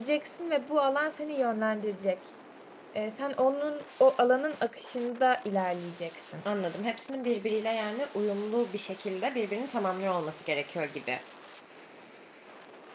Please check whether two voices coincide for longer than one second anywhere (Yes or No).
No